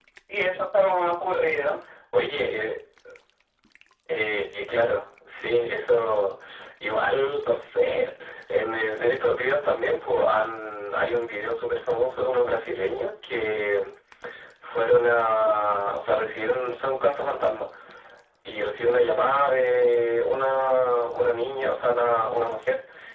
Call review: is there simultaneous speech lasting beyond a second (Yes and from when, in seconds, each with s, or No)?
No